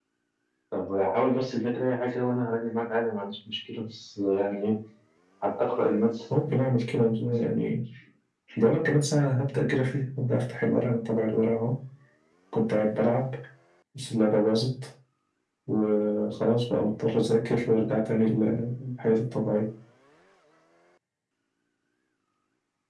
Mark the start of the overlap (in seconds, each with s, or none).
none